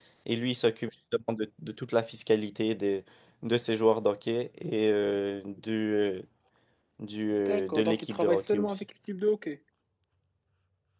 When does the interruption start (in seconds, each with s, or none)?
7.5 s